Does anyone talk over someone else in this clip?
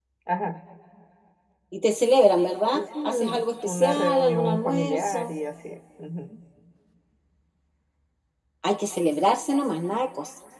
Yes, from 2.7 s

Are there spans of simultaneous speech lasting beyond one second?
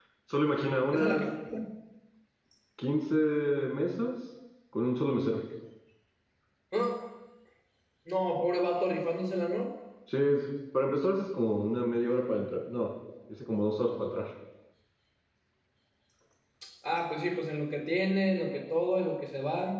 No

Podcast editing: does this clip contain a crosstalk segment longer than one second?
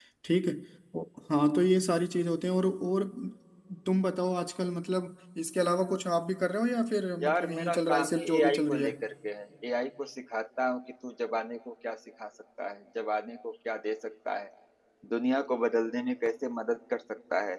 Yes, from 7.2 s

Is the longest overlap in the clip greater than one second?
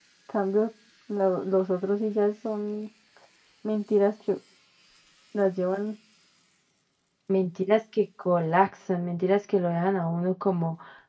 No

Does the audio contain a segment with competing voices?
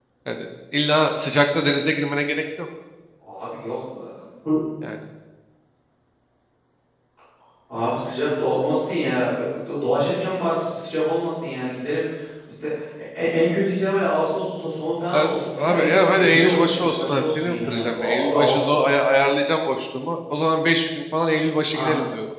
Yes, from 15.1 s

